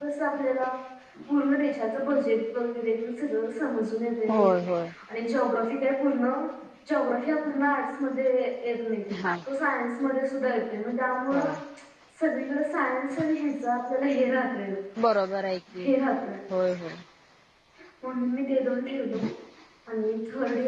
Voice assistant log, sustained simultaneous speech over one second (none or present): none